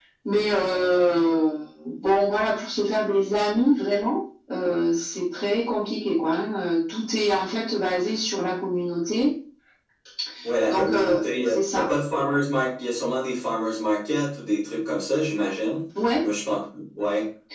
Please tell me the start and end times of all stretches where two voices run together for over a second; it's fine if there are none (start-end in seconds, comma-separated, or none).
10.7-11.9